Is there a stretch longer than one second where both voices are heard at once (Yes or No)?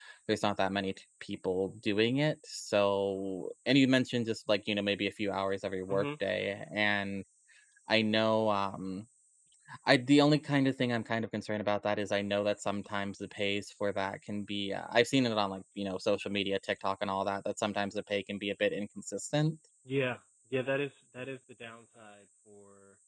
No